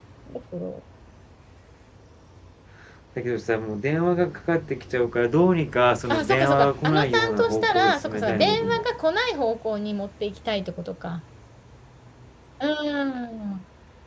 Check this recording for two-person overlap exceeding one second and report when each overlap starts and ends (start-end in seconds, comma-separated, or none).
6.1-8.8